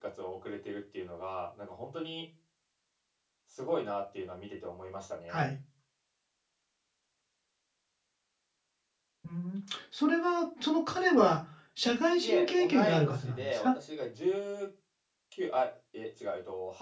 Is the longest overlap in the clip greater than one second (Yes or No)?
Yes